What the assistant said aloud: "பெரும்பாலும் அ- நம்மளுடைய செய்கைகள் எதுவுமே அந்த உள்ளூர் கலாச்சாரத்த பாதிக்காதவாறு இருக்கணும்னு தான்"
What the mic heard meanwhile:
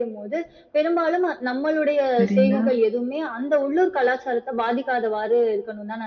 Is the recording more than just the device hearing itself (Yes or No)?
Yes